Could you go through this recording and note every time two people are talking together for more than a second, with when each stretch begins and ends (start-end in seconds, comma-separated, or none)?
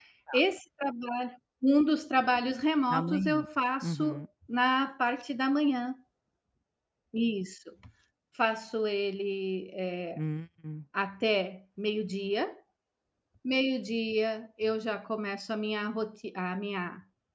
none